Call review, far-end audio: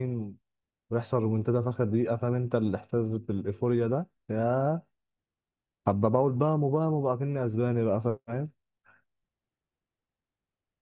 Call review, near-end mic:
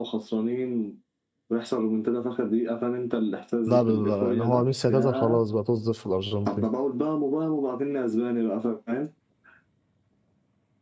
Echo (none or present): present